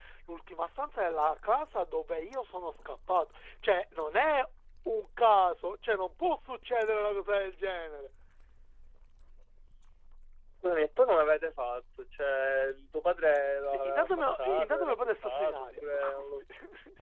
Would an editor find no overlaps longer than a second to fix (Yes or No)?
No